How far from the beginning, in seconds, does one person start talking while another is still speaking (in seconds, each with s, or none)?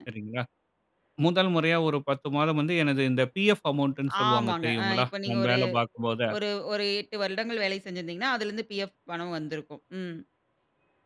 4.1 s